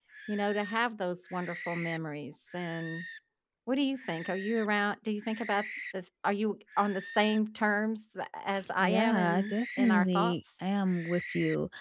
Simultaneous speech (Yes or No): Yes